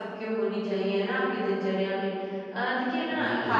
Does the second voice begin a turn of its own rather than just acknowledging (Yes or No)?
No